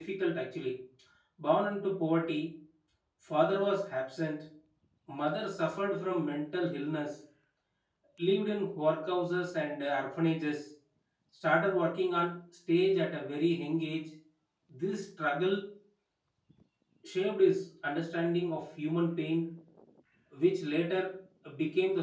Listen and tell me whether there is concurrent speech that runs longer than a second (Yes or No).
No